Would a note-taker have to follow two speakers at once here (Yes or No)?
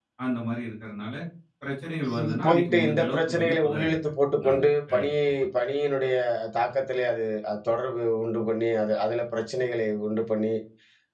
Yes